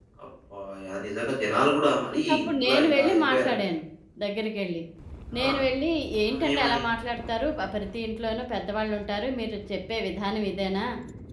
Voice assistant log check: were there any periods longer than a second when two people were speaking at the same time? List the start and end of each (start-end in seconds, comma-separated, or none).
2.2-3.7